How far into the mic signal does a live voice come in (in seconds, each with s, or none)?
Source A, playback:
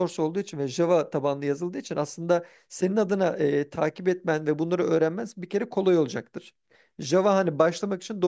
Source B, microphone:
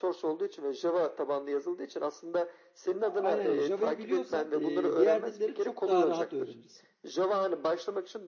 3.0 s